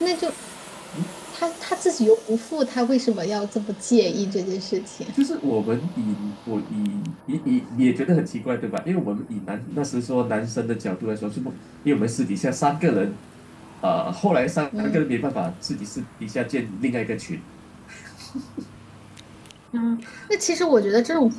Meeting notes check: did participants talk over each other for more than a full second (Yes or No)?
No